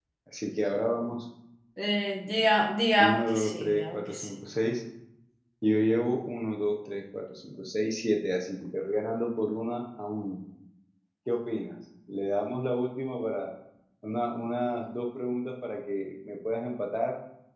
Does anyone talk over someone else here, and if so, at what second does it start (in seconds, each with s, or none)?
3.0 s